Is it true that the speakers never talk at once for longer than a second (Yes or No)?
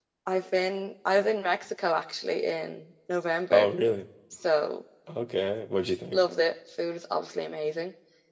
Yes